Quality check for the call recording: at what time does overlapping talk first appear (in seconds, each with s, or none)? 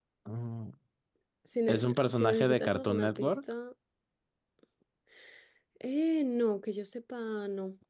1.7 s